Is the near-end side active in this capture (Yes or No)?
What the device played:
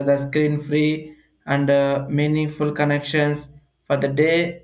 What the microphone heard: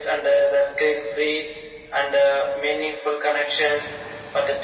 No